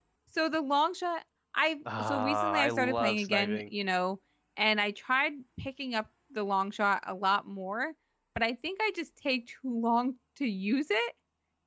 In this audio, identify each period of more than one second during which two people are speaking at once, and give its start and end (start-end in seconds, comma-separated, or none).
2.0-3.6